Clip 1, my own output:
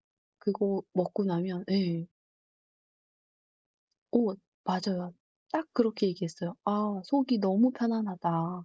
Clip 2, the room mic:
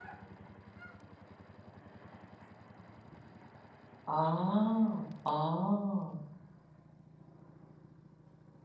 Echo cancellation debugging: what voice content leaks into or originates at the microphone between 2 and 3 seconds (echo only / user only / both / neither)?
neither